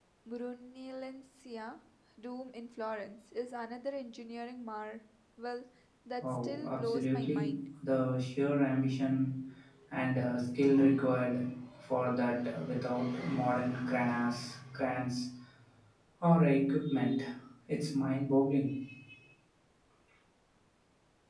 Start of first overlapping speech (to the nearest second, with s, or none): 6 s